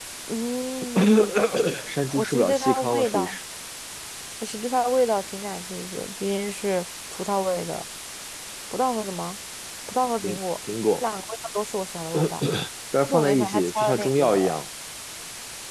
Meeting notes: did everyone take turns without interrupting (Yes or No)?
No